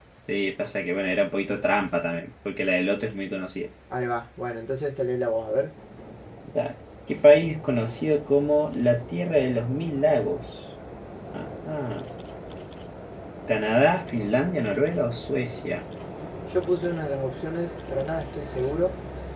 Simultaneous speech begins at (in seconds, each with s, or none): none